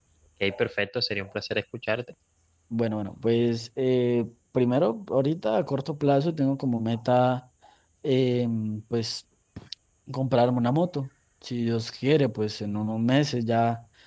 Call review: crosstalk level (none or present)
none